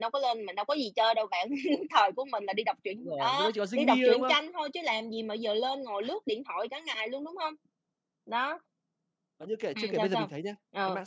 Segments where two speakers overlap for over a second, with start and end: 3.0-4.3

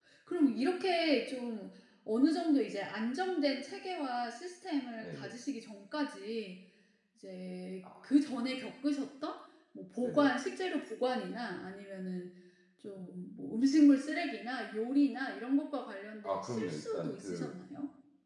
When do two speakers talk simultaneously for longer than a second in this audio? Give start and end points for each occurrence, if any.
16.2-17.5

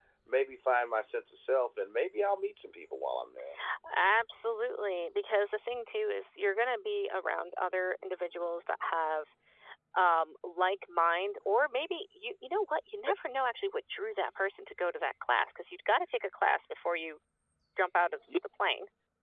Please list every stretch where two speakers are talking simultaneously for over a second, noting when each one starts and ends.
none

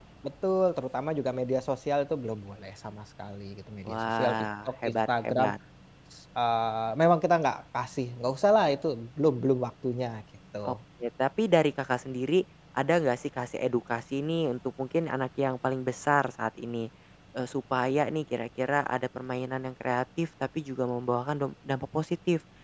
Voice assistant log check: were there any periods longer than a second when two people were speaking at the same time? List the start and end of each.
3.9-5.5

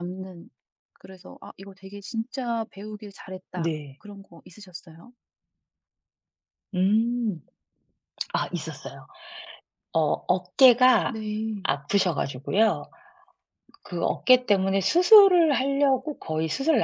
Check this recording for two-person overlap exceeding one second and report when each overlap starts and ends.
none

